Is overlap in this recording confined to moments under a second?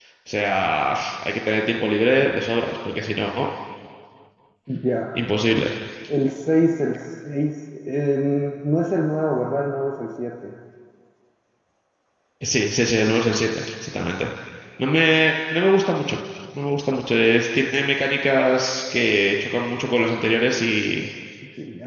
Yes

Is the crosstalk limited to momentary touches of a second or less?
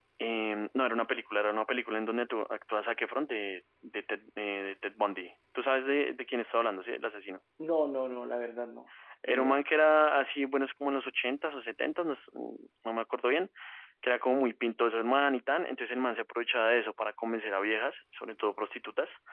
Yes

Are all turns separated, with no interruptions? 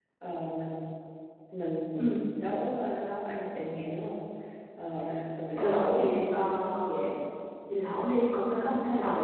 No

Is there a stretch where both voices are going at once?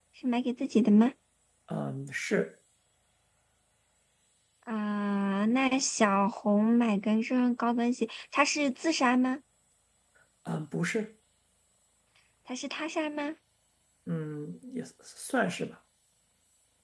No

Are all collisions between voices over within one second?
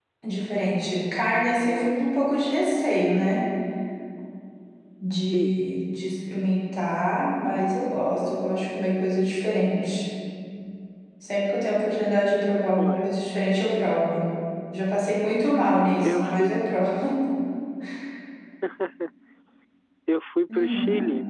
Yes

